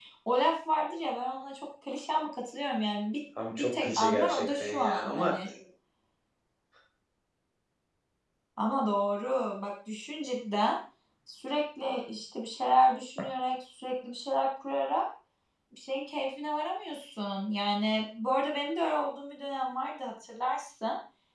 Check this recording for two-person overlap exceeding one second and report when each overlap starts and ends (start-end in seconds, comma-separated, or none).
3.6-5.3